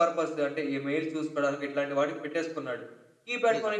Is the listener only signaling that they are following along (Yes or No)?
Yes